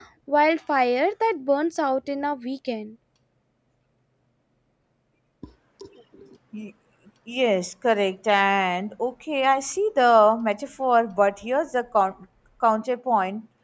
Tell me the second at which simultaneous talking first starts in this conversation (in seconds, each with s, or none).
none